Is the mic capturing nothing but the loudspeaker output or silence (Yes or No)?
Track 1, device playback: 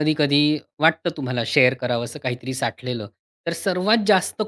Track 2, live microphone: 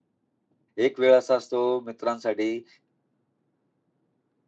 No